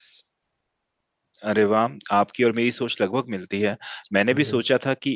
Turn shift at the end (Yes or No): No